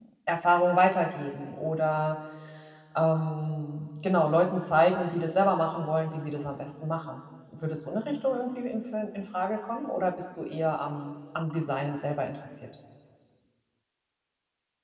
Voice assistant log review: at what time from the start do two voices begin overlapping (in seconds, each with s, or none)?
none